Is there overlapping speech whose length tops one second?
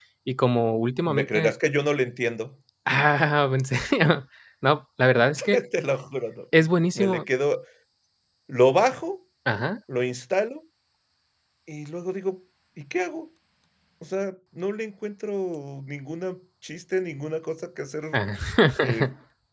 No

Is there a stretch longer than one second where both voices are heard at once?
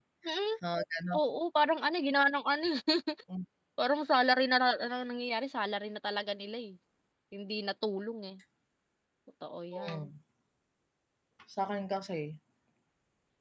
No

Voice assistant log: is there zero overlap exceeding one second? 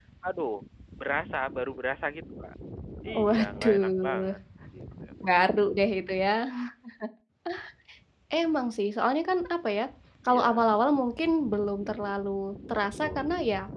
No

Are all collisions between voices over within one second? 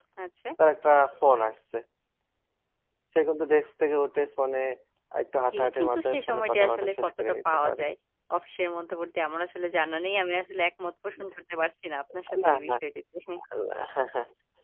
No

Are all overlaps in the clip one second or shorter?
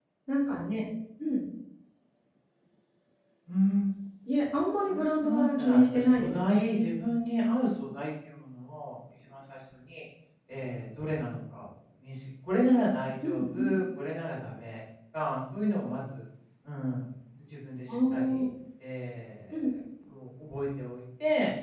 No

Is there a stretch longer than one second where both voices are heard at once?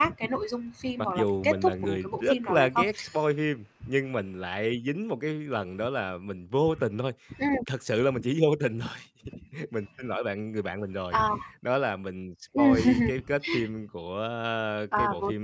Yes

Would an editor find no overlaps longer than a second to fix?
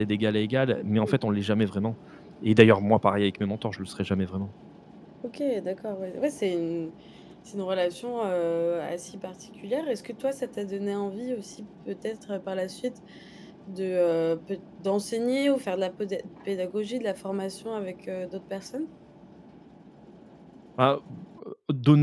Yes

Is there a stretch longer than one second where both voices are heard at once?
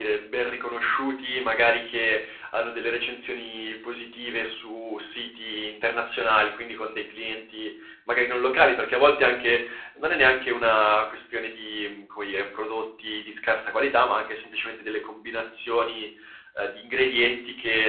No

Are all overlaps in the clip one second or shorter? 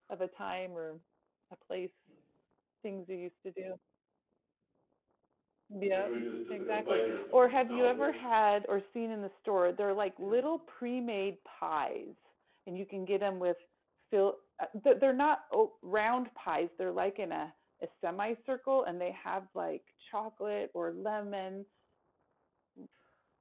No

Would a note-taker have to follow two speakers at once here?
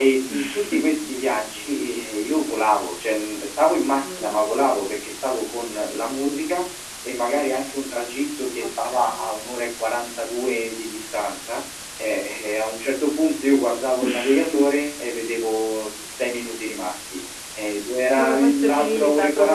Yes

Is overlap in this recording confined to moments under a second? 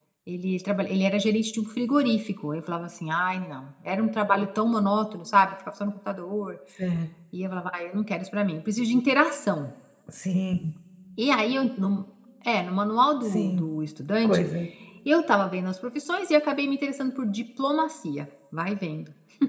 Yes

